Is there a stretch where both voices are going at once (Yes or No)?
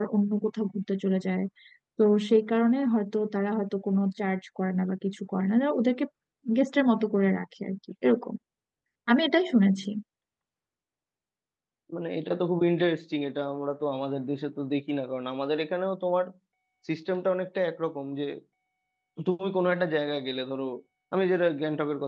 No